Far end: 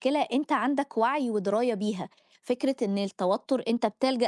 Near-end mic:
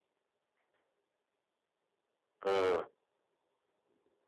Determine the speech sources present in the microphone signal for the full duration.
user only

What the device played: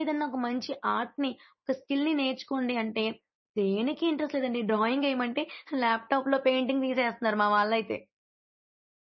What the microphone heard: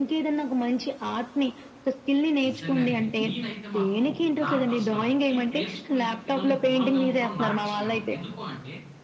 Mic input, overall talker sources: both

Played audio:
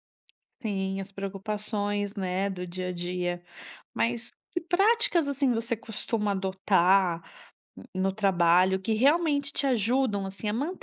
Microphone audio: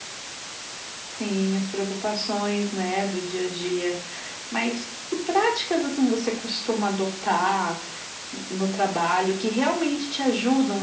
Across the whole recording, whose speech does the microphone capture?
echo only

